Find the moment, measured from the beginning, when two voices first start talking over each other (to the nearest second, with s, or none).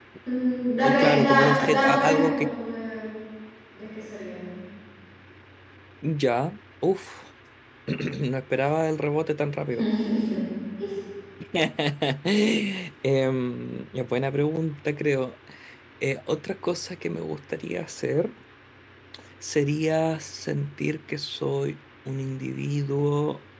1 s